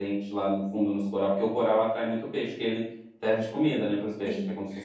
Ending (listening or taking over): taking over